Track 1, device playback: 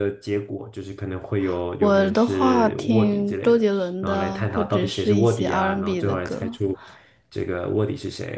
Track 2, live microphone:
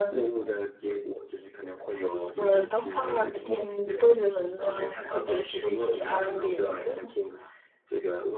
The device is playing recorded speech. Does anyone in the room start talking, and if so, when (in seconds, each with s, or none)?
none